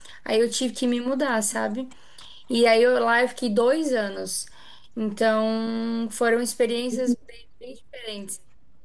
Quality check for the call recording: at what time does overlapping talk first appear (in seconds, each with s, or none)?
none